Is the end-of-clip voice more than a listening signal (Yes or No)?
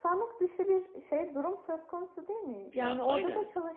No